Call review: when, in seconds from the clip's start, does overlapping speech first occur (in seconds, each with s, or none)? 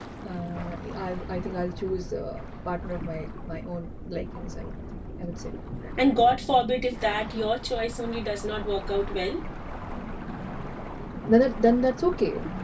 none